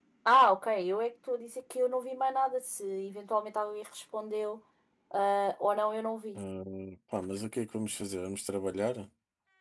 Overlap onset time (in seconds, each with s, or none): none